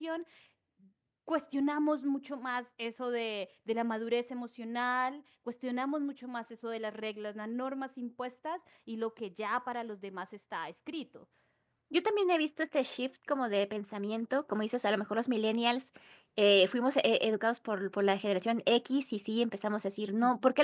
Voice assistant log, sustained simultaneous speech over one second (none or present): none